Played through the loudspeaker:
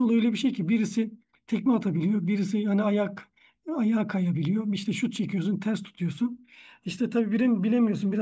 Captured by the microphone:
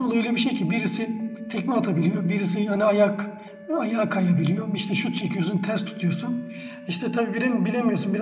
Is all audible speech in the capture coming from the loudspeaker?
Yes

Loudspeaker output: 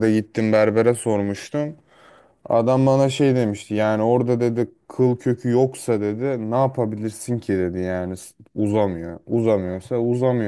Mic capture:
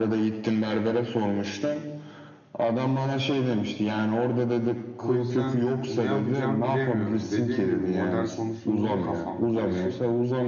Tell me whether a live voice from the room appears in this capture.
Yes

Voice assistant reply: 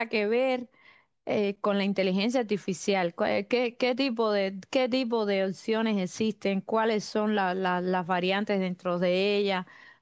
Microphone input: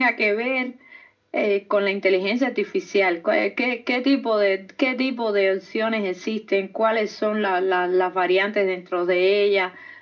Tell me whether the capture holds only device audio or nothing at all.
Yes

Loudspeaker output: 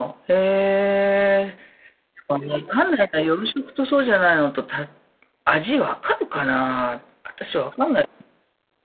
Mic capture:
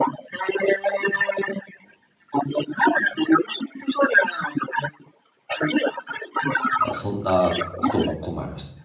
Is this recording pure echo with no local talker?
No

